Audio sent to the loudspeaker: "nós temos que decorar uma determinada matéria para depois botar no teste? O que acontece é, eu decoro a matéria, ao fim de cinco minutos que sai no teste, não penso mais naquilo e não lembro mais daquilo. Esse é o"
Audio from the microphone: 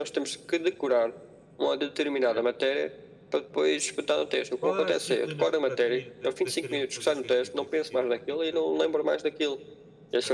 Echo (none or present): present